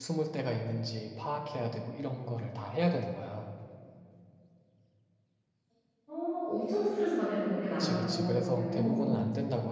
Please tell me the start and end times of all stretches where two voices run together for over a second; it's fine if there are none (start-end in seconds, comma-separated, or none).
7.8-9.1